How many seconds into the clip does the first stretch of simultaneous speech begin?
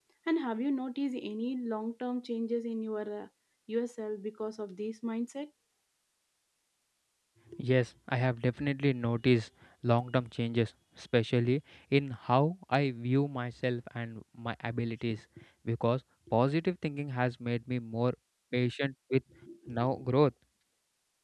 none

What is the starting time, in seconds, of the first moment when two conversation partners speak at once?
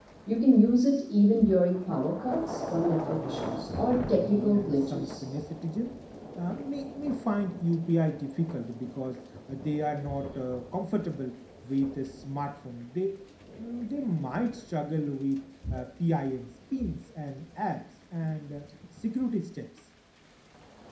3 s

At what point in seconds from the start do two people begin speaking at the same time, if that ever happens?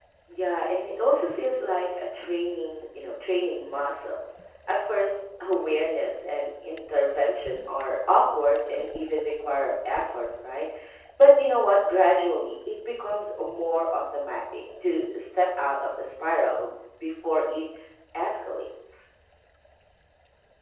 none

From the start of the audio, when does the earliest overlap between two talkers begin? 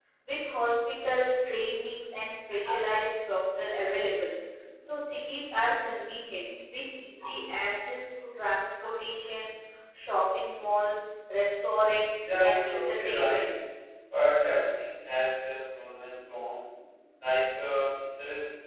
12 s

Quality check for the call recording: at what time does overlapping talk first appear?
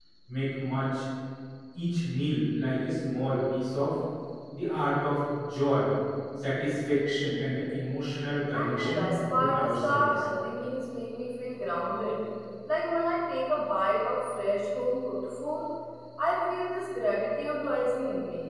9 s

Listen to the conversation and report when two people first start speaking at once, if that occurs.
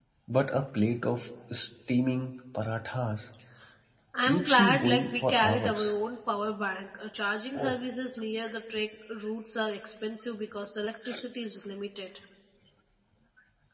4 s

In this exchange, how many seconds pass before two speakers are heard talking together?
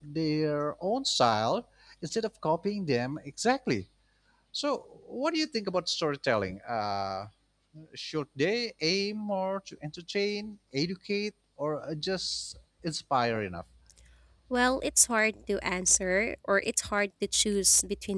none

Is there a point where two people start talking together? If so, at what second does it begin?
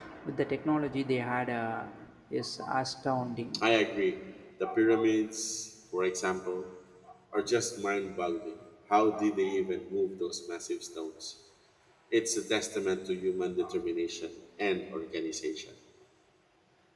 none

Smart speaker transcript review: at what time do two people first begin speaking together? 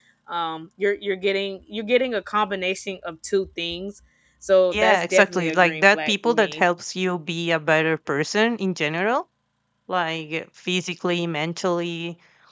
5 s

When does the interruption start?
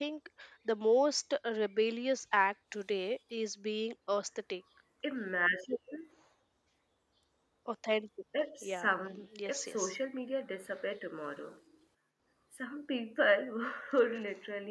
9 s

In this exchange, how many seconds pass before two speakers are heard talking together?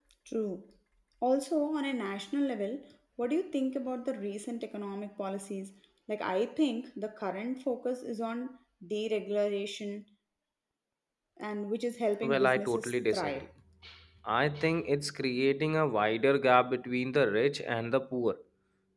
12 s

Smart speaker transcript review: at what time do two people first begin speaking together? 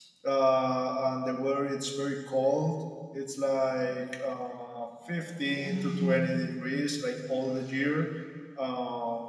none

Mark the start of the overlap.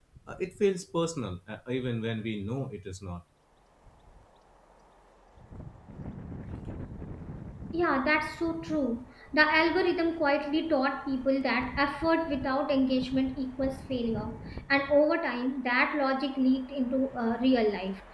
none

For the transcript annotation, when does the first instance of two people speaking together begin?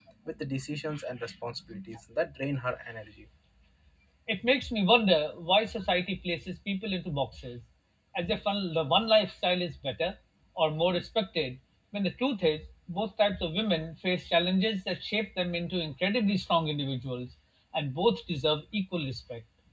none

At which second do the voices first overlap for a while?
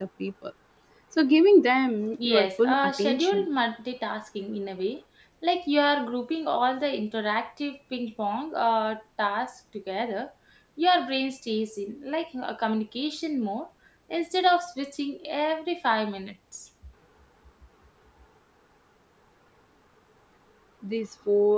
2 s

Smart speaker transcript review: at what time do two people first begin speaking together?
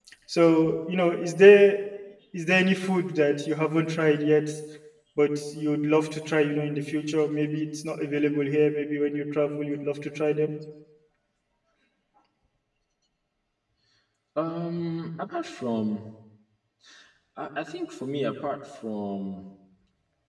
none

